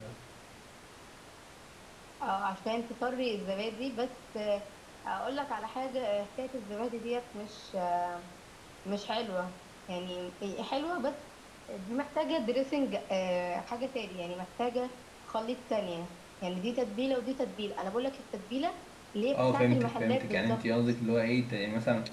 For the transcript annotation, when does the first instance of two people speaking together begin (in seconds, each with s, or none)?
19.3 s